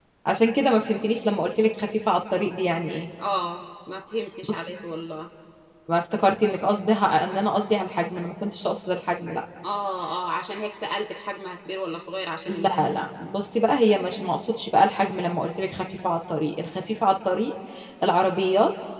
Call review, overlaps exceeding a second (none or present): none